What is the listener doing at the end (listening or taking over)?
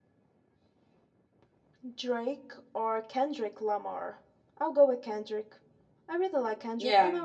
listening